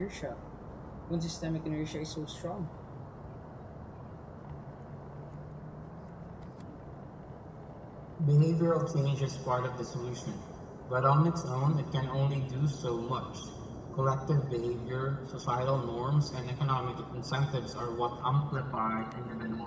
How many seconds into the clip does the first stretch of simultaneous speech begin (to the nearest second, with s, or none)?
none